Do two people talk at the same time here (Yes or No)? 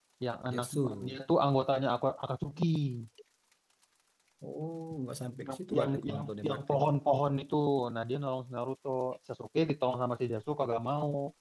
Yes